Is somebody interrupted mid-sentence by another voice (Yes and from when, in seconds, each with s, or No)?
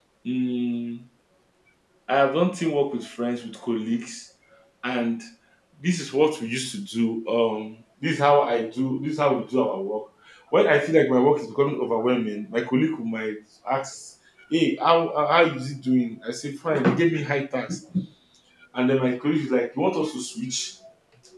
No